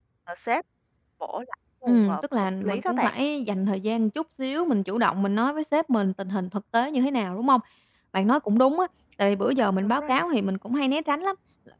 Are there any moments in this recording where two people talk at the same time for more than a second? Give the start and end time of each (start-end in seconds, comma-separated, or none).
1.9-3.1